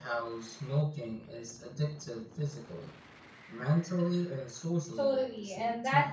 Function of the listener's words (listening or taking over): taking over